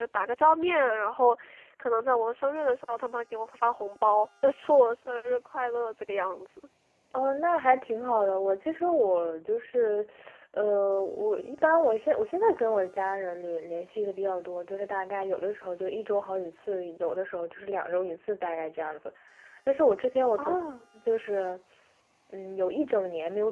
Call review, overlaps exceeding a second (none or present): none